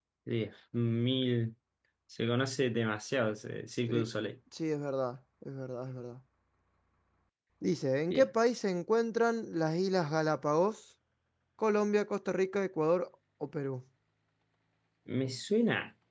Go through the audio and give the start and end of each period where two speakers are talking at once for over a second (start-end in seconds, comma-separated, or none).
none